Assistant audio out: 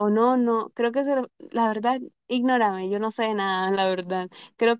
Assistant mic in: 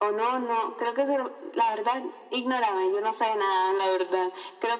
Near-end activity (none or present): none